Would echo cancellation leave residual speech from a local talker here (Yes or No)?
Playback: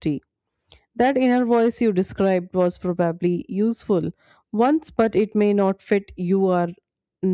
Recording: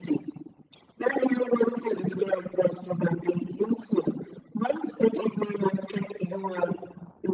No